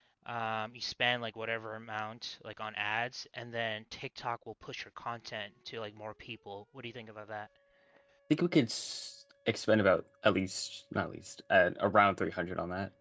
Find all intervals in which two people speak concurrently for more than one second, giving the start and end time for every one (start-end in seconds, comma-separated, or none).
none